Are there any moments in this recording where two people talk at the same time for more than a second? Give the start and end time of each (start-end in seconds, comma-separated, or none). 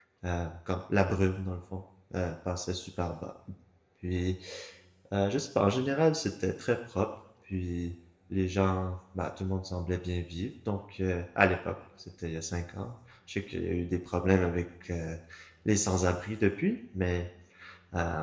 none